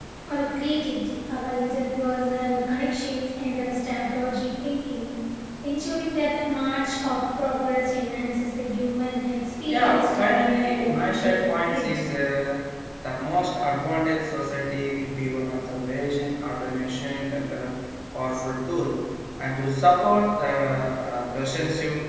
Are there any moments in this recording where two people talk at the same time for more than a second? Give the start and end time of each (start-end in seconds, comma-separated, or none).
9.7-11.9